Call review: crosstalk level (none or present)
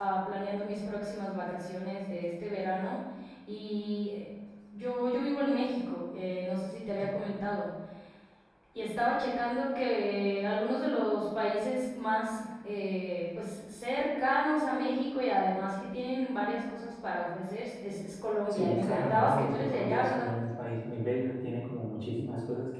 present